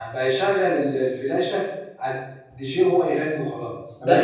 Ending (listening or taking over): taking over